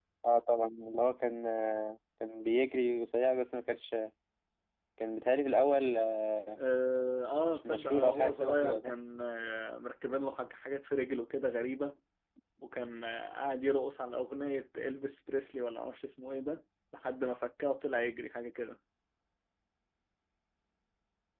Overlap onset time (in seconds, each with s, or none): 7.5 s